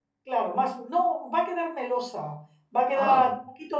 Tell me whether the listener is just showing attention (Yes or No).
Yes